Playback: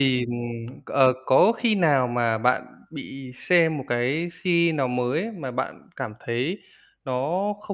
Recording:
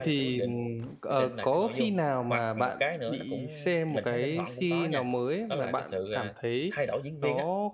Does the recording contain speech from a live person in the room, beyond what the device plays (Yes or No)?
Yes